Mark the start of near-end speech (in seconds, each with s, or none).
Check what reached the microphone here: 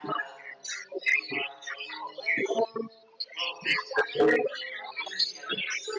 none